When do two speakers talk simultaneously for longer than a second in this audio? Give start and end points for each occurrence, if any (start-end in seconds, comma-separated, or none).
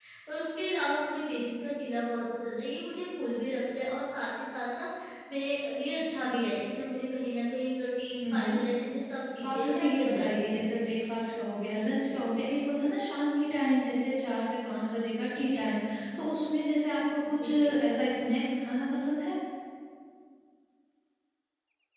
9.4-10.6